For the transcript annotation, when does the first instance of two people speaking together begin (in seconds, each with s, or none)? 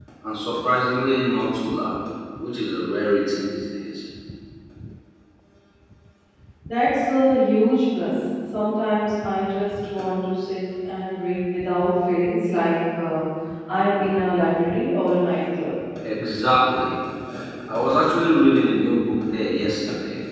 none